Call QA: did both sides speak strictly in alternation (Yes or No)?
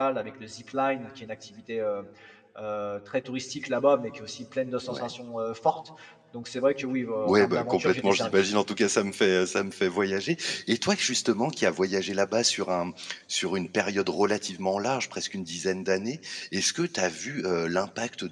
No